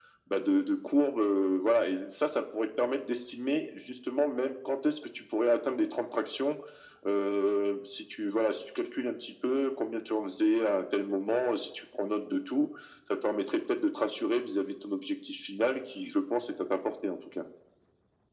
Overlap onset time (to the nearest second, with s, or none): none